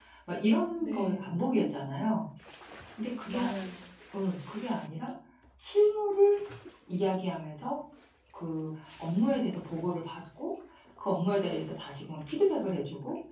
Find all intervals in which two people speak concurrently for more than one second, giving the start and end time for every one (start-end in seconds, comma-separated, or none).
0.8-2.2